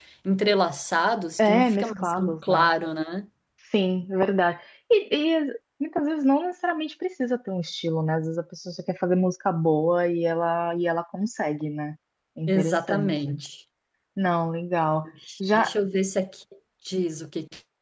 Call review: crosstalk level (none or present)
present